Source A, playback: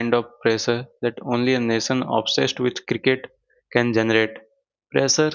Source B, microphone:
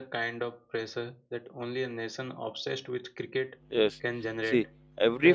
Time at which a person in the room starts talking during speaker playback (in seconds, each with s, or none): 3.7 s